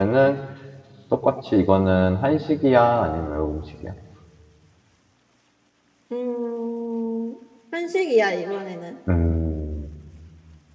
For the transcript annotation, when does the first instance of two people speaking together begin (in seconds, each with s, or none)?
none